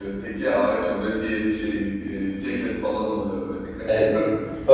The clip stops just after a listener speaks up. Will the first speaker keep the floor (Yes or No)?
No